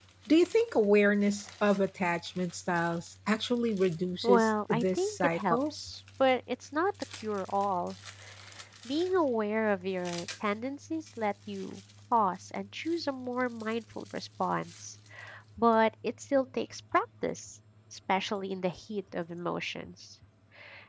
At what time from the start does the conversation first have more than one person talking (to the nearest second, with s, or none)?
4 s